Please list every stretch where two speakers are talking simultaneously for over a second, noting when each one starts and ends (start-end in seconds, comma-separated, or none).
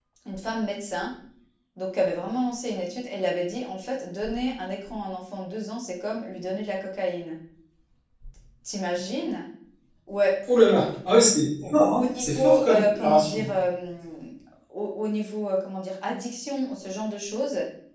11.6-13.6